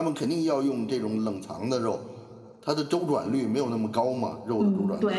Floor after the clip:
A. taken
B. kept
A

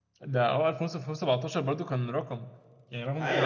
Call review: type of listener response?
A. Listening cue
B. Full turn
B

